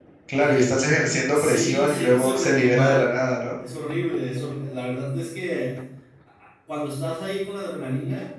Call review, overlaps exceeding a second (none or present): present